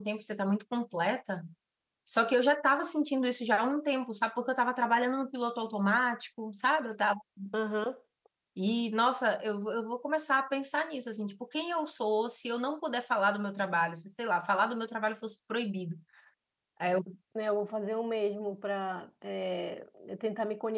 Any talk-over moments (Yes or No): No